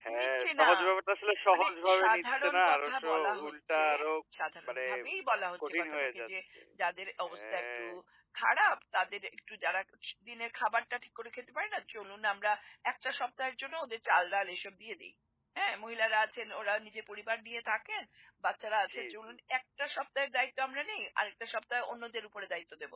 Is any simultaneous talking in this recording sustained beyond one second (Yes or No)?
Yes